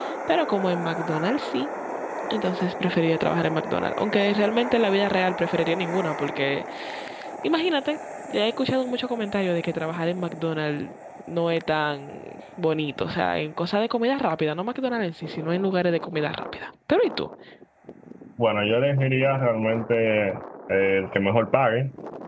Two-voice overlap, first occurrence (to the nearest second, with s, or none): none